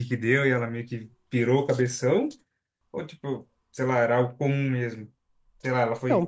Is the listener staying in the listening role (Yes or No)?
No